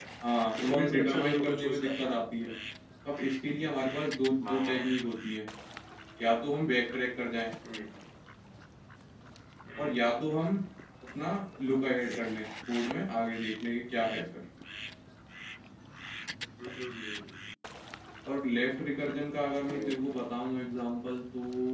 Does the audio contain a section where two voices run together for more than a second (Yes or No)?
Yes